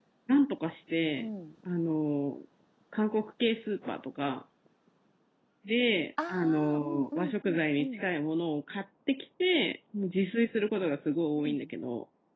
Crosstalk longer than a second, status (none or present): present